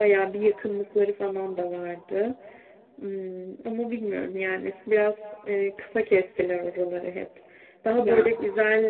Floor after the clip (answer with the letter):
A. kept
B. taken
A